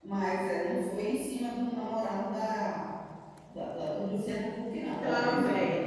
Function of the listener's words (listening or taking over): taking over